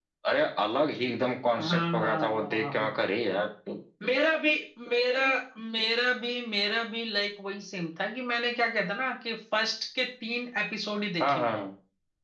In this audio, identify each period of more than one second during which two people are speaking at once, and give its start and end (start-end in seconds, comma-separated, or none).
1.6-3.0